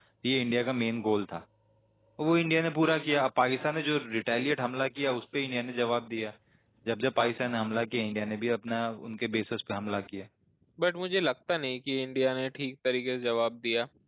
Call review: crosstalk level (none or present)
none